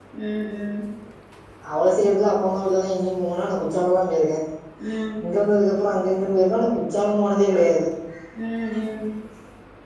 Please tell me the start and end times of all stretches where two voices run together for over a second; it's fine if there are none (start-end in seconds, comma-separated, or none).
none